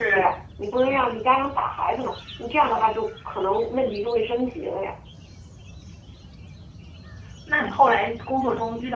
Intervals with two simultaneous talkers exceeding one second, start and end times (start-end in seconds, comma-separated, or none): none